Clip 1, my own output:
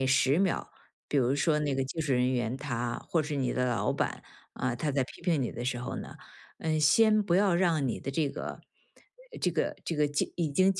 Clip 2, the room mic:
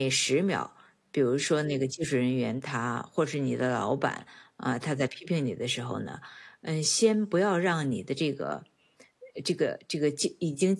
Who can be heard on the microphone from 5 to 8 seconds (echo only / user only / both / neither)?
echo only